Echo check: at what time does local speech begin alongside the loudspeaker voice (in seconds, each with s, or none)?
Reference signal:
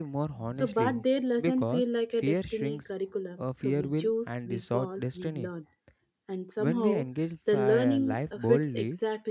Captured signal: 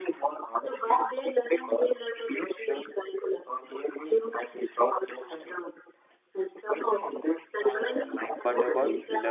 8.4 s